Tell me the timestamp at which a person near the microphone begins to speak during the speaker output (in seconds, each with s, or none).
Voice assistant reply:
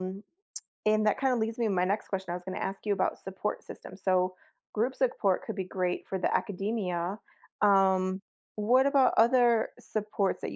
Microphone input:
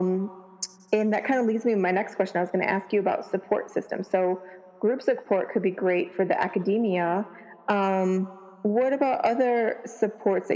none